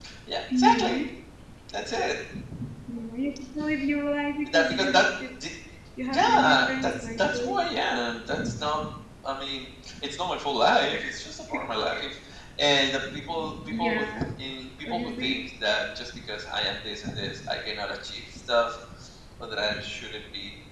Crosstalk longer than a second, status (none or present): present